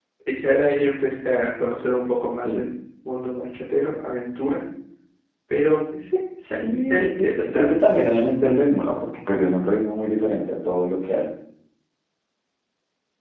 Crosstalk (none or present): present